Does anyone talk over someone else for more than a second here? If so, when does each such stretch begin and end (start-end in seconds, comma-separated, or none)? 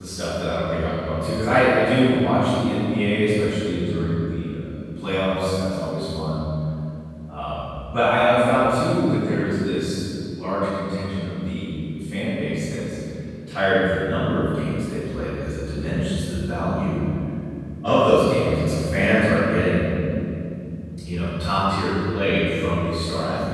none